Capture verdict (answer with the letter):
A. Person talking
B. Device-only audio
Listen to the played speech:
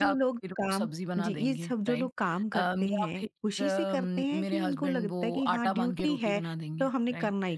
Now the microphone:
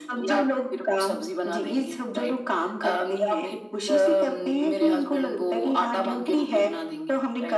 B